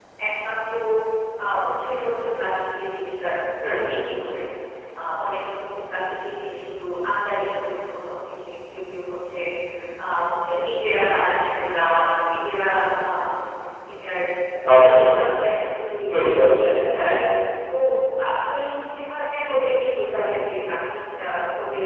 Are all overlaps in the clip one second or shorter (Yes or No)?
Yes